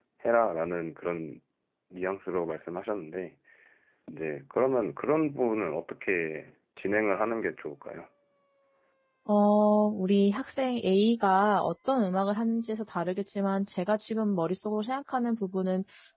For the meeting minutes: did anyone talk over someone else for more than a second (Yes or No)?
No